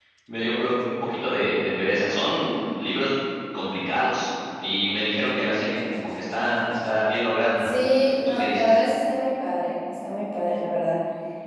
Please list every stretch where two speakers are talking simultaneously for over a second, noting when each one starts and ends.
none

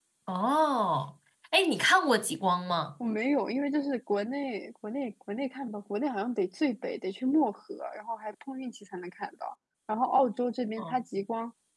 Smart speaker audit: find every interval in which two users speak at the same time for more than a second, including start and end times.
none

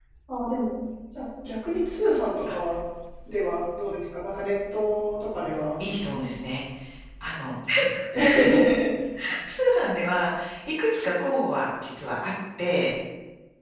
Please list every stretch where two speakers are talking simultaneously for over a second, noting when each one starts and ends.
none

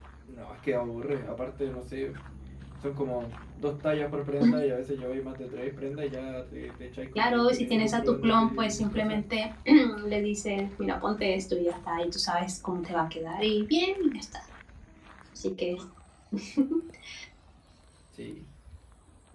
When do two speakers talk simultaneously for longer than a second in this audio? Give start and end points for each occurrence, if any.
7.2-9.2

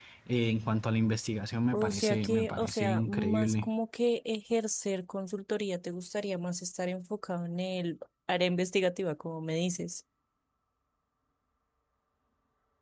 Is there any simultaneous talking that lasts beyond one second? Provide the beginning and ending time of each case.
1.7-3.7

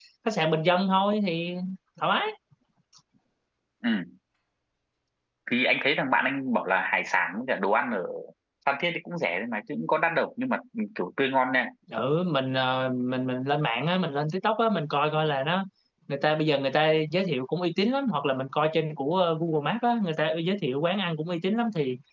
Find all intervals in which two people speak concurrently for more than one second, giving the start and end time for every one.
none

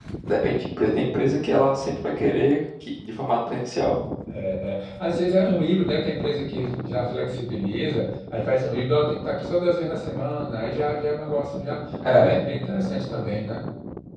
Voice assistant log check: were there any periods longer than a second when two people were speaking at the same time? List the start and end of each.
none

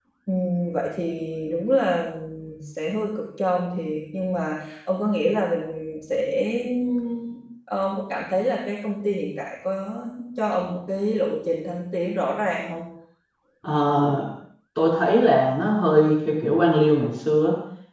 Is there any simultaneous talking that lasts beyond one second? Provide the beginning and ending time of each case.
none

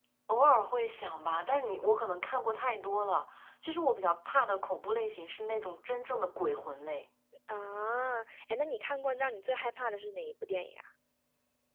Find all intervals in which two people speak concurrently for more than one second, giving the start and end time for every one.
none

